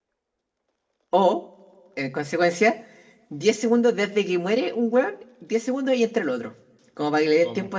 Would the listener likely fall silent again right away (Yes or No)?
Yes